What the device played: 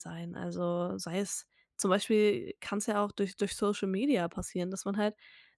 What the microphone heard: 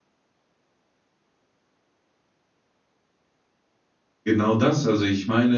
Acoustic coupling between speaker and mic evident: No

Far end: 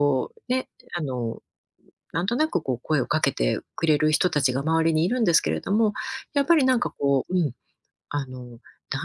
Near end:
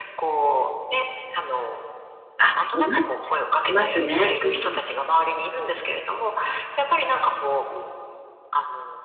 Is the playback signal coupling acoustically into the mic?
Yes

